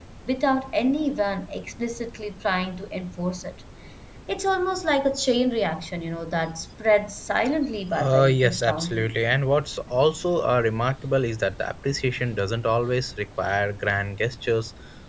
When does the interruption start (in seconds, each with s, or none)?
7.9 s